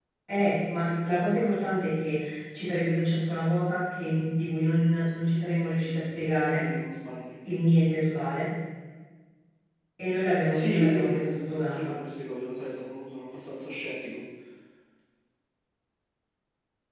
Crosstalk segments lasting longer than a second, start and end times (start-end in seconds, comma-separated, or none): 10.5-12.0